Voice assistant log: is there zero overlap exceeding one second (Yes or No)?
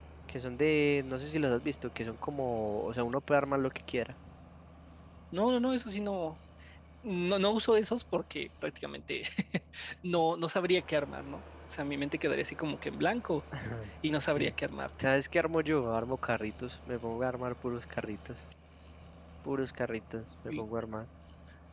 Yes